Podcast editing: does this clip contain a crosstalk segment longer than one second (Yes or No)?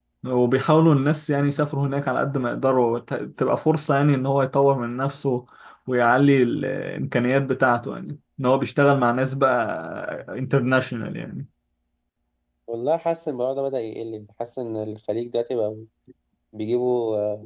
No